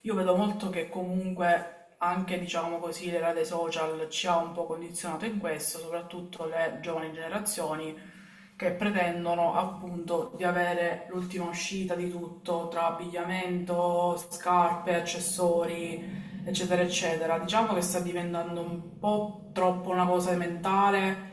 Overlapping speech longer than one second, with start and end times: none

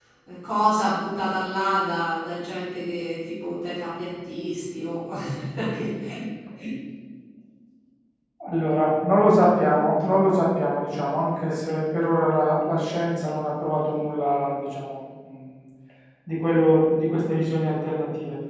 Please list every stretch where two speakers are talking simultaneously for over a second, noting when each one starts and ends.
none

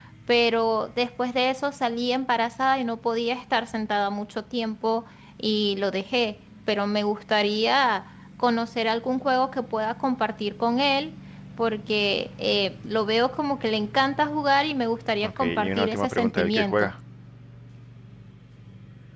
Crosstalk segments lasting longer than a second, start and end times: 15.2-16.9

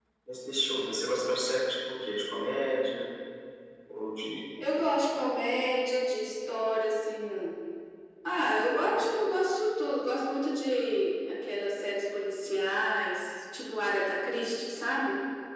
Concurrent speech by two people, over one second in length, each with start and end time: none

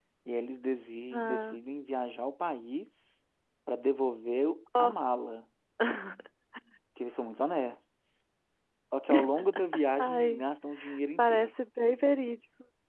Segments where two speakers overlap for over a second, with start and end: none

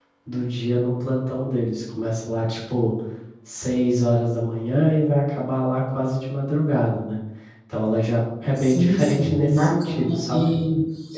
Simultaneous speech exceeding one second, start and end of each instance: 8.6-10.5

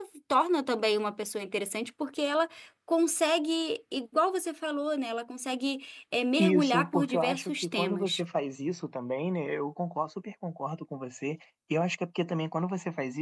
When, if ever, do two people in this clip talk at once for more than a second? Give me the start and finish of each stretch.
6.4-8.2

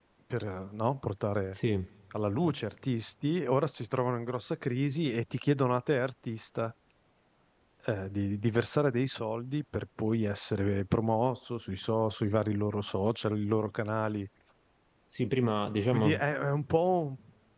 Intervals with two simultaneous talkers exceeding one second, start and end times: none

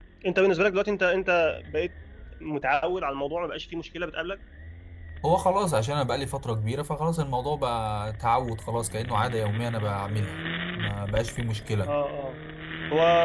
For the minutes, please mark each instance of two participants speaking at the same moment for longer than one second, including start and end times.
none

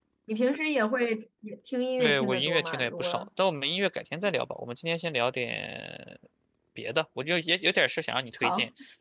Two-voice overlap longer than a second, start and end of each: 2.0-3.3

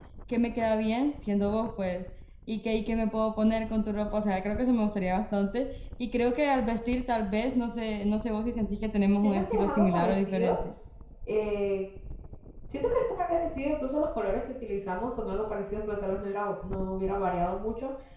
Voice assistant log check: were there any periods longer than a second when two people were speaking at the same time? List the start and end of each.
9.2-10.5

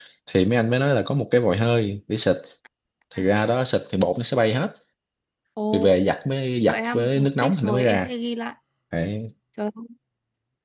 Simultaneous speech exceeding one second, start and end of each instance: 6.7-8.1

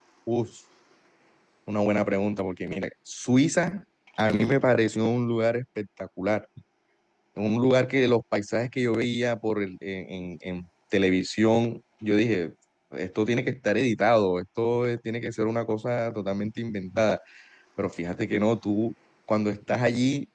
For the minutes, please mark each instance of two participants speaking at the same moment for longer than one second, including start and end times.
none

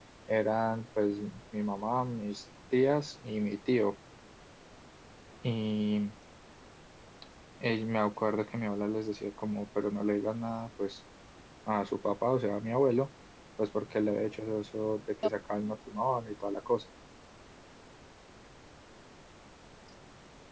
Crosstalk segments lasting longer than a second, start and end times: none

